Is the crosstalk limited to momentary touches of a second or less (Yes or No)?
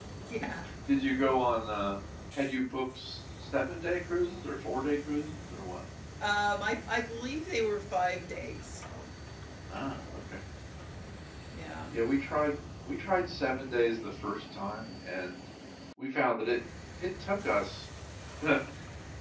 Yes